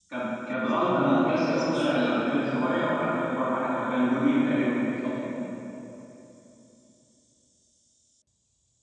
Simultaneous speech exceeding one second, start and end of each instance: 0.9-2.6

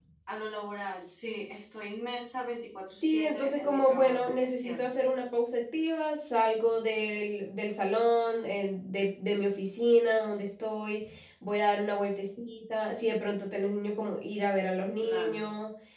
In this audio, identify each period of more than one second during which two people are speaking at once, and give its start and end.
3.0-5.0

